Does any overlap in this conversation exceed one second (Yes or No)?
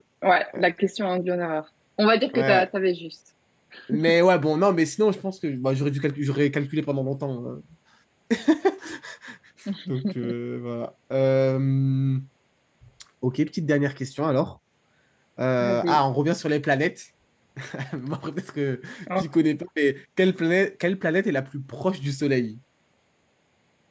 No